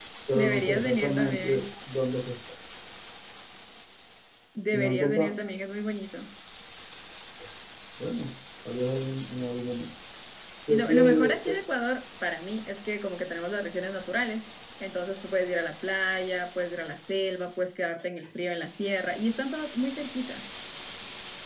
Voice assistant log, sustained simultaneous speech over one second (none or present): present